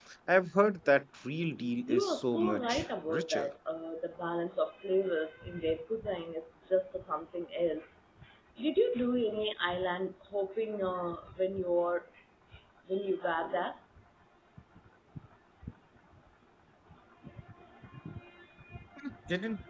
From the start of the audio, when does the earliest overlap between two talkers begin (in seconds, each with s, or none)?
1.9 s